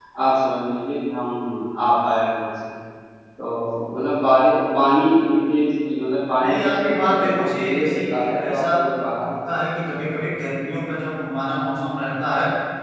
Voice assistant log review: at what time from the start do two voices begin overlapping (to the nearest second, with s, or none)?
6 s